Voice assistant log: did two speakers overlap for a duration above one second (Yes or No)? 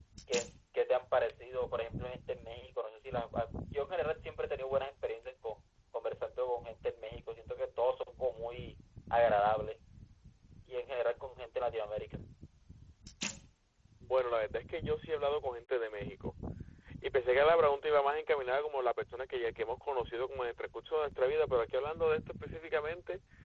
No